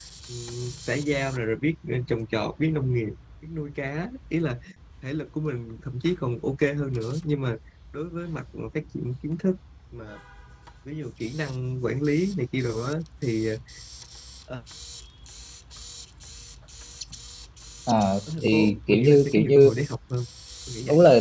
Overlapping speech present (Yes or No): Yes